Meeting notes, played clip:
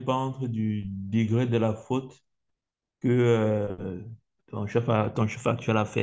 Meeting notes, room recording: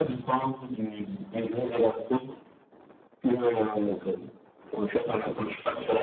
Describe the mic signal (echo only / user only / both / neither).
echo only